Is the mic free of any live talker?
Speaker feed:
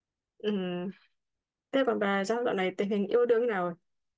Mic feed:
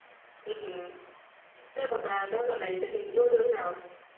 Yes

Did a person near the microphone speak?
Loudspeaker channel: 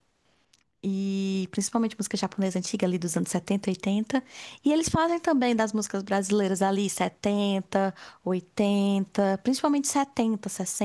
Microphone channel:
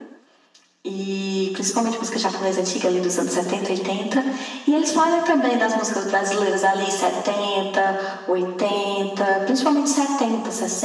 No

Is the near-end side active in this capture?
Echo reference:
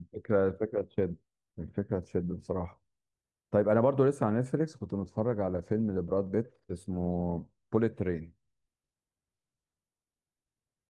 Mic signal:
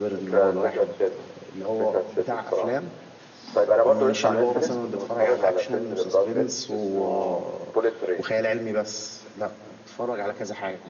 Yes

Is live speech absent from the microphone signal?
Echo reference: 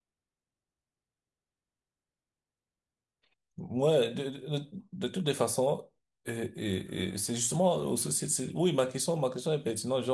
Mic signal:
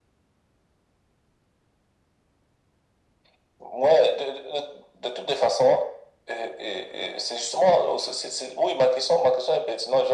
Yes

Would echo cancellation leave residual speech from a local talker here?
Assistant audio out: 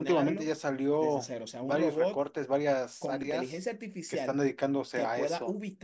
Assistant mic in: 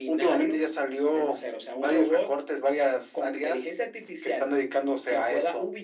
No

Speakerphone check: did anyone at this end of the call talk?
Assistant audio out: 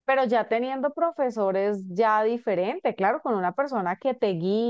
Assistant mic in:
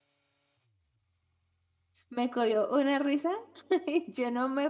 Yes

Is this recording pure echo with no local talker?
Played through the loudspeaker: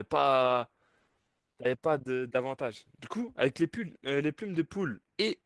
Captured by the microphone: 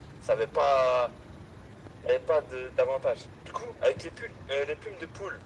Yes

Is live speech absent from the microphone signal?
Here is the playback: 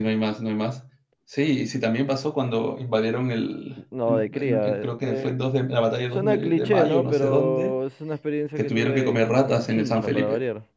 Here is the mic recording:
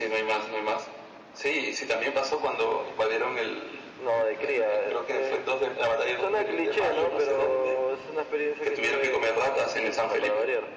Yes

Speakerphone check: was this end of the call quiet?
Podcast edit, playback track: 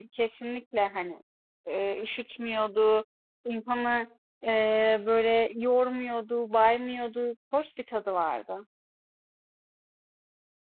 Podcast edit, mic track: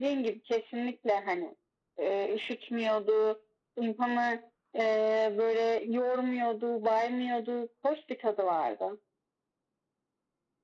Yes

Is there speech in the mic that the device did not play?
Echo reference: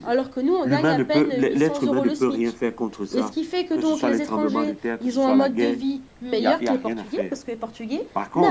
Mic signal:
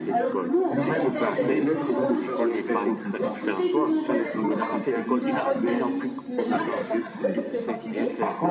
Yes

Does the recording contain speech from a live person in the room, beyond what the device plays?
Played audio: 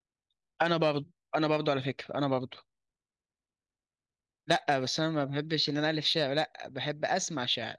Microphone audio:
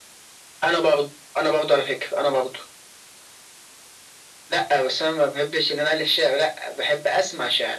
No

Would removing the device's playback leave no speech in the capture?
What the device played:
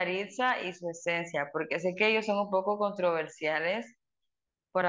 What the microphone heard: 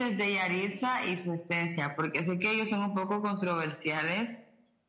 Yes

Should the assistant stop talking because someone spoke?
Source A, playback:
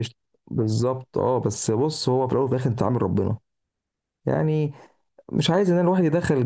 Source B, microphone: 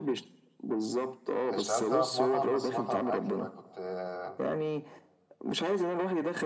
Yes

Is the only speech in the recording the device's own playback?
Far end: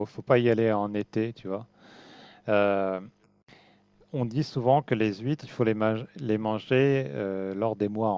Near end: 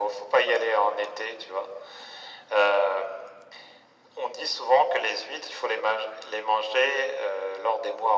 Yes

